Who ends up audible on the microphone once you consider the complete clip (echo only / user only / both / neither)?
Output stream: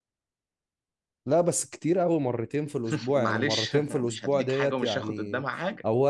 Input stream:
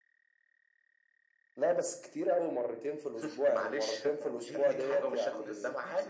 both